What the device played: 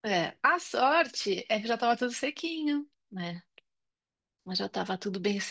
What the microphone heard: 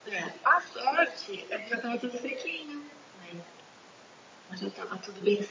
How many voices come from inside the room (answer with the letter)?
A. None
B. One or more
A